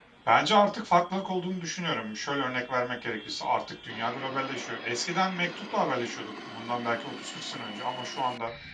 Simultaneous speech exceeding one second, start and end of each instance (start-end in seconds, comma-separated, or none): none